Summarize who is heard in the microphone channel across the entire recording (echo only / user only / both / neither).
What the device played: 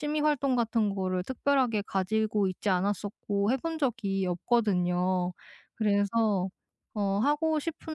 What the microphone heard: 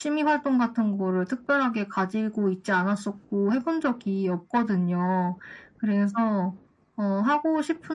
echo only